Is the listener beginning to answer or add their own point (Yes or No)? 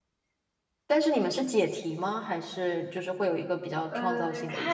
Yes